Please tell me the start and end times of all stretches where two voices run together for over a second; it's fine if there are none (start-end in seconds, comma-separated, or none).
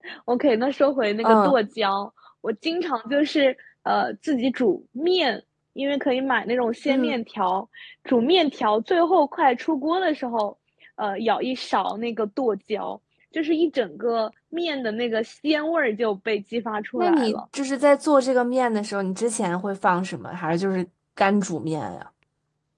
none